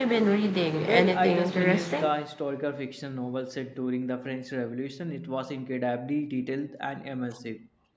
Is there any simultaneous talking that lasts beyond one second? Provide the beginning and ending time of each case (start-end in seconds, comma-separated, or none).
0.8-2.1